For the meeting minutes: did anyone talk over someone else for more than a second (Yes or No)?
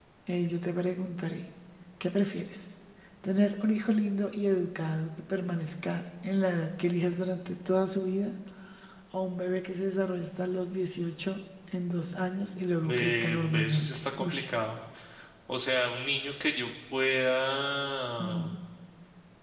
Yes